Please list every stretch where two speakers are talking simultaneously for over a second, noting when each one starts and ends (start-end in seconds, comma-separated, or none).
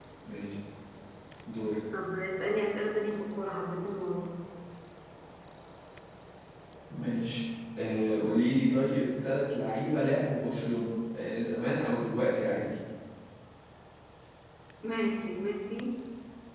none